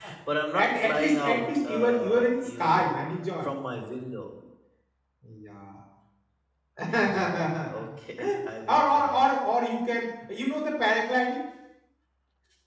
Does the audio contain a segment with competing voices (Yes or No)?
Yes